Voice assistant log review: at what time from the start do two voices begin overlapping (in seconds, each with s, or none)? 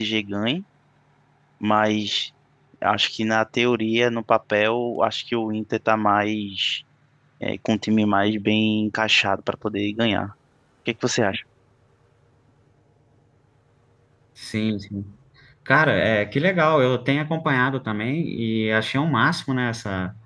none